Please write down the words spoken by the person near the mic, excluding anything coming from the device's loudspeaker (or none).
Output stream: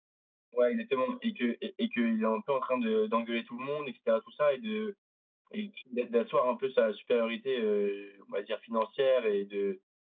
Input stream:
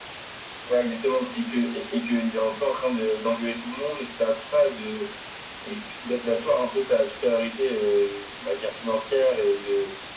none